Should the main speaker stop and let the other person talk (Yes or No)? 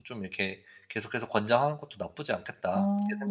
Yes